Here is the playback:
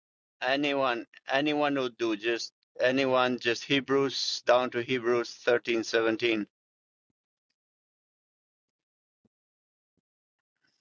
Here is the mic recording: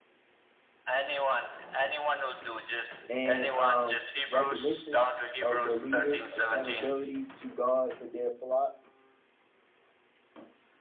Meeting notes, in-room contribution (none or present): present